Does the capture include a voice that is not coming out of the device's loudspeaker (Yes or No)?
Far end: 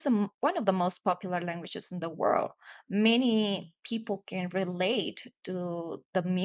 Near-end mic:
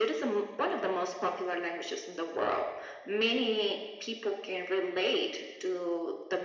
No